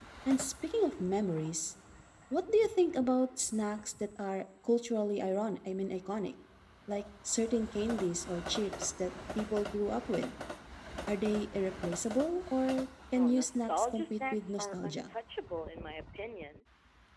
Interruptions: present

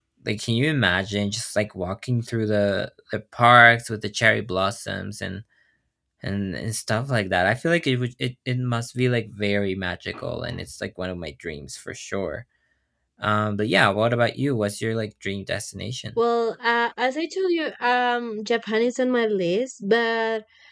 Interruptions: none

